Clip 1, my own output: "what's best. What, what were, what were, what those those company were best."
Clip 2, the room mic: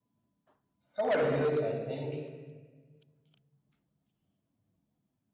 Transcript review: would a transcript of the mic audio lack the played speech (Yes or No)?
Yes